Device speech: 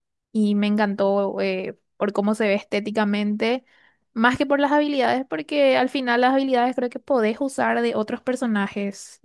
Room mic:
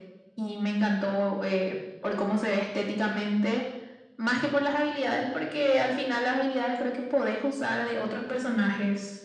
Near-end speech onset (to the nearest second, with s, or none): none